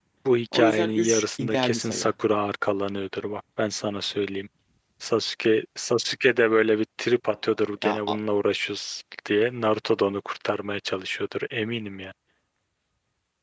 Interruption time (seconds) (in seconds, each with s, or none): 0.5 s